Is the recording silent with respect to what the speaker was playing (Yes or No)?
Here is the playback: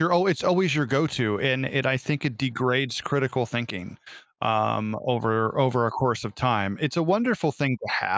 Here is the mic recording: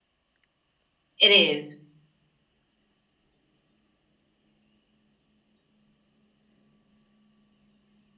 Yes